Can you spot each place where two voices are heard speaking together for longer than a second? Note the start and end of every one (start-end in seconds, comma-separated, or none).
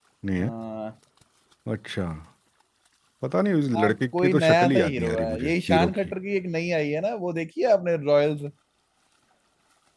3.8-6.1